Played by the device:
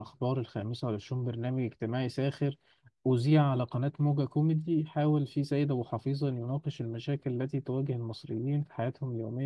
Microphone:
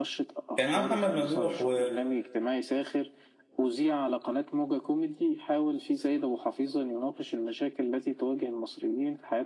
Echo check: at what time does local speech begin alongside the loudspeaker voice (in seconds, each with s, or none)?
0.6 s